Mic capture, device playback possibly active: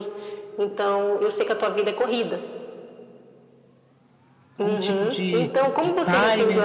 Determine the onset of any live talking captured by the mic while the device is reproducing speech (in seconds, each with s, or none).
4.5 s